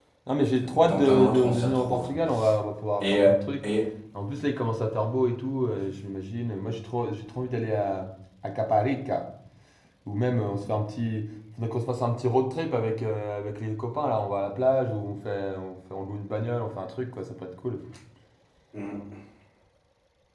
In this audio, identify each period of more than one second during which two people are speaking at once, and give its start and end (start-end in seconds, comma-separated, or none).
0.7-2.1